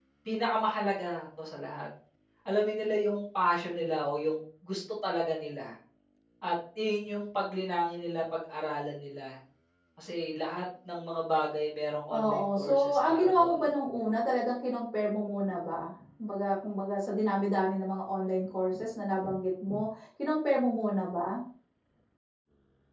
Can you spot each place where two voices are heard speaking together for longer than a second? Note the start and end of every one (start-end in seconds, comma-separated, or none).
12.2-13.6